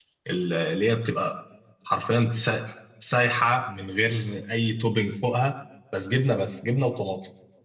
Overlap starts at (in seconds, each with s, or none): none